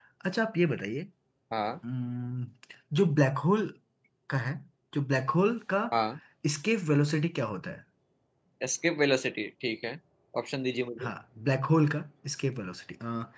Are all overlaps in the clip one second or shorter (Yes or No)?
Yes